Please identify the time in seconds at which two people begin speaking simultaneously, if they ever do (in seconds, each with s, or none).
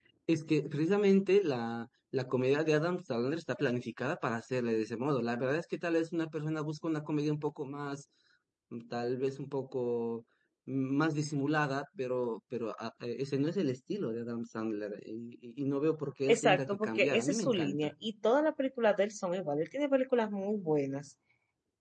16.3 s